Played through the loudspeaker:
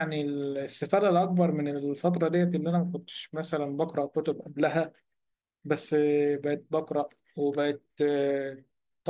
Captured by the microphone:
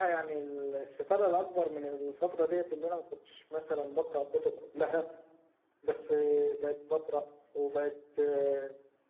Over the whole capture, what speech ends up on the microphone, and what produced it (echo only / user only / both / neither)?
echo only